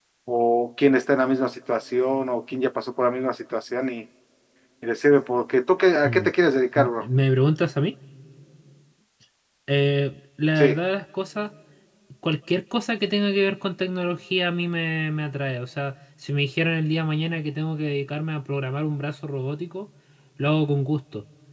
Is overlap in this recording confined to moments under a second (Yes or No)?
Yes